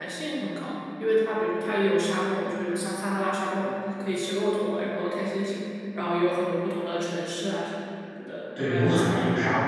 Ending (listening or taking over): taking over